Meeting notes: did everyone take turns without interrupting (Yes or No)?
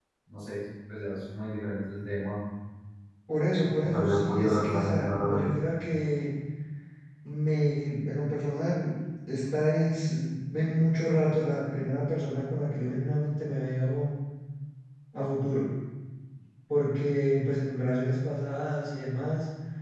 No